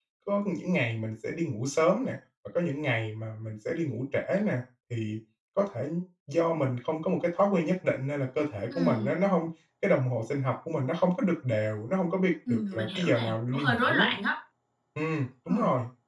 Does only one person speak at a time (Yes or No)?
No